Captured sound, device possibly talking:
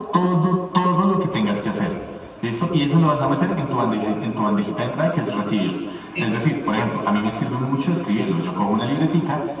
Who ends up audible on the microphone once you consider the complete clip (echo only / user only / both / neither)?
both